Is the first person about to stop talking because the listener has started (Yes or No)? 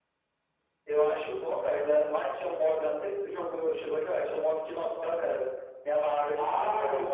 Yes